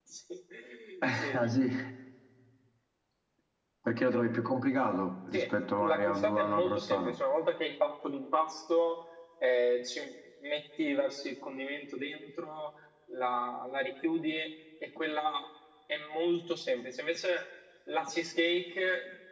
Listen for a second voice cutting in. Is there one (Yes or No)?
Yes